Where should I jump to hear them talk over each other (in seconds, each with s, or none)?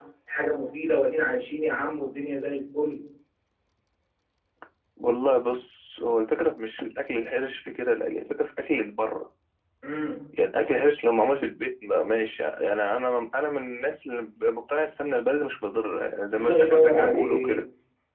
16.3 s